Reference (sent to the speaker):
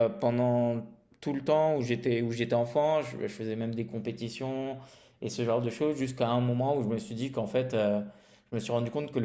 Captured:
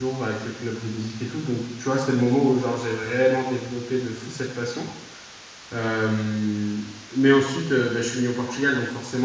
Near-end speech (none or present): present